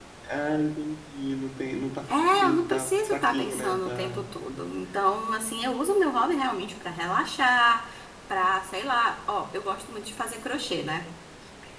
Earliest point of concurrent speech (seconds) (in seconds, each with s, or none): 2.1 s